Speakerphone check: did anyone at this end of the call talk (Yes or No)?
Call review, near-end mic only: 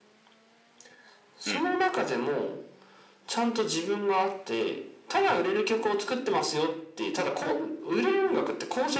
Yes